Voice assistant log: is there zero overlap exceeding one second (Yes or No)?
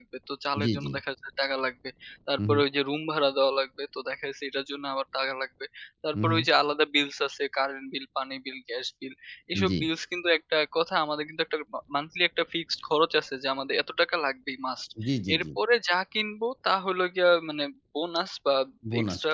Yes